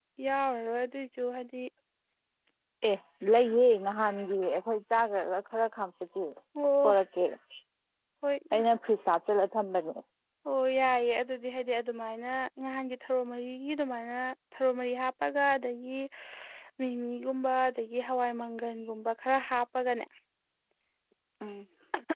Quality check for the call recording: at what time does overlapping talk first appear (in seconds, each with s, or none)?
none